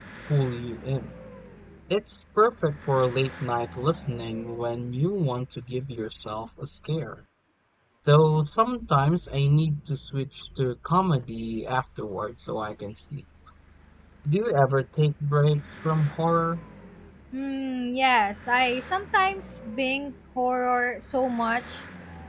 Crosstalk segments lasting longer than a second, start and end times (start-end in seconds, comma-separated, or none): none